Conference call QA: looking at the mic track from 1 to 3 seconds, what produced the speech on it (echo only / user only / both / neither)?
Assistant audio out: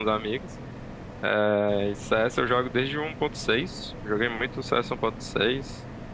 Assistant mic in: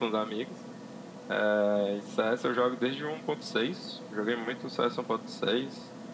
echo only